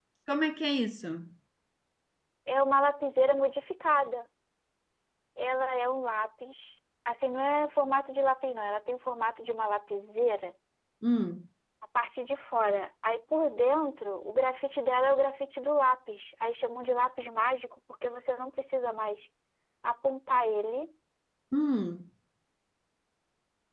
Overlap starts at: none

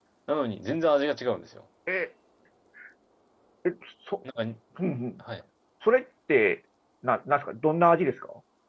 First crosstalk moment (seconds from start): none

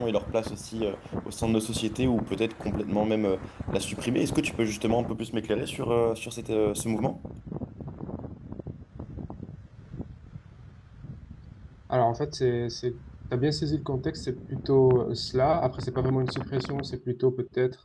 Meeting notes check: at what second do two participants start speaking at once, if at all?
none

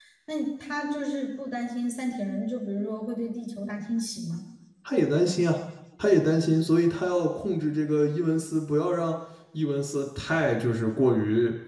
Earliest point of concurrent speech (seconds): none

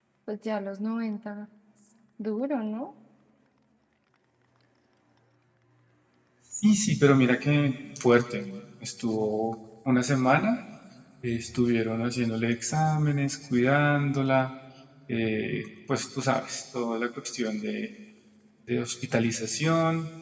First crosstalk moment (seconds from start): none

